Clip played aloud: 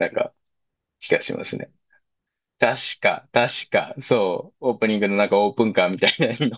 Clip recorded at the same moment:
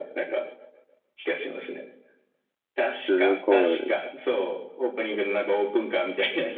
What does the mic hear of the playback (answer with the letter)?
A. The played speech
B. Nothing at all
A